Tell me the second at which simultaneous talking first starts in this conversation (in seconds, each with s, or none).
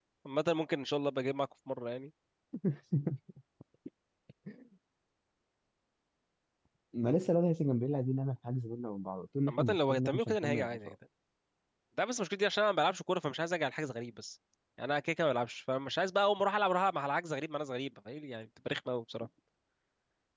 9.5 s